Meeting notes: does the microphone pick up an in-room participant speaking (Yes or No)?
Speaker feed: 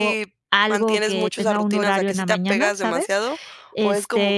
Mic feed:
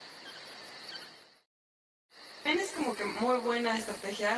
Yes